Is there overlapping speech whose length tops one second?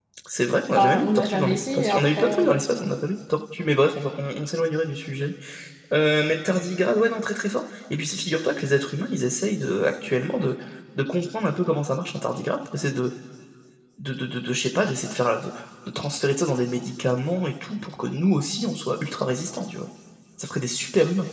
Yes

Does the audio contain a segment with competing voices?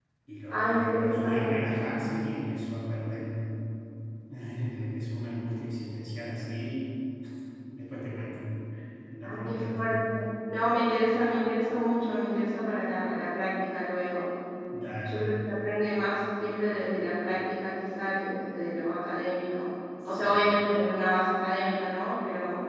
Yes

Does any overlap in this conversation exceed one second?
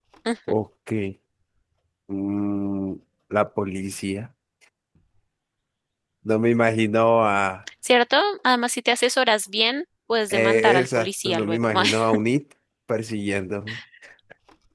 Yes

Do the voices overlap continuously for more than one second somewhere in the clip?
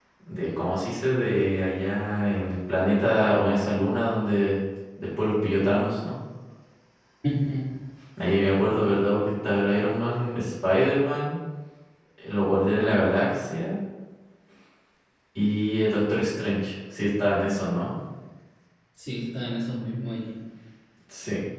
No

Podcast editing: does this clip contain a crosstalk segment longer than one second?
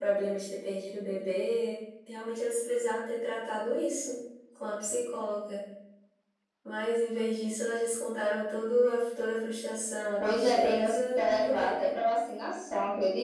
Yes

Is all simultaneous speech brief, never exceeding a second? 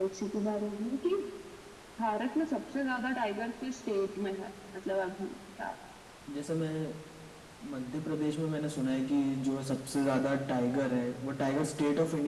Yes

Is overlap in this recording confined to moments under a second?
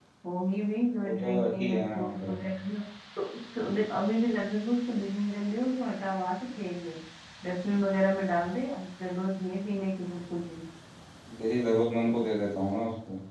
No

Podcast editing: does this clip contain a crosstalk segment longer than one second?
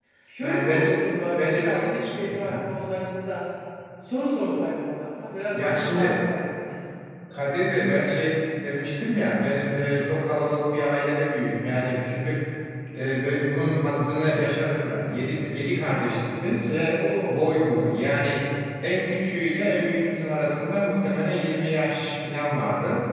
Yes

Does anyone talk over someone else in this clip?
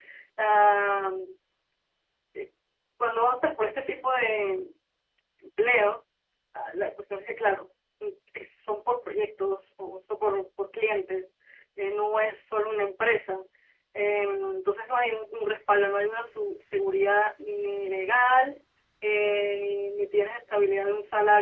No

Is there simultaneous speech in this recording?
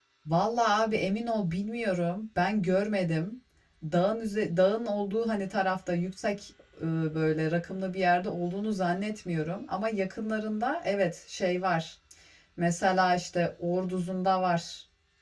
No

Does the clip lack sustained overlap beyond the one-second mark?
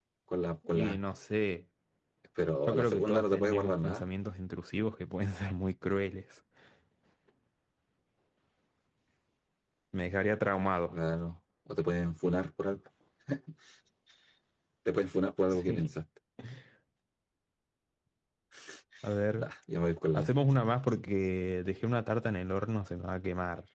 No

